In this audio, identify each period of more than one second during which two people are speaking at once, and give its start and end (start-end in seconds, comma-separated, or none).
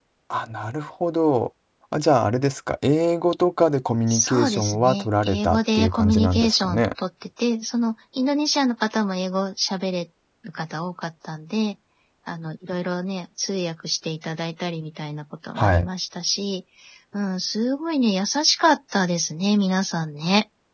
4.1-6.8